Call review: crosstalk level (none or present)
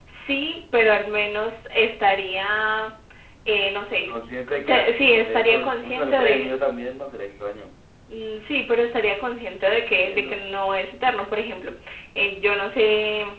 present